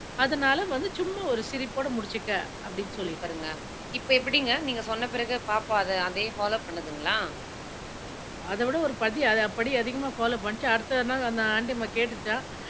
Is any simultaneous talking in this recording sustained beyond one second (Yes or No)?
No